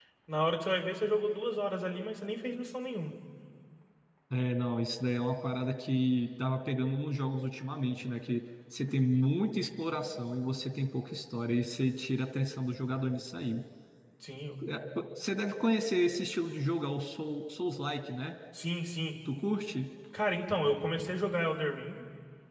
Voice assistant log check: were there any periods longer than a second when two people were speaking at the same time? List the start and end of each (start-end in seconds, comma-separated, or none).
none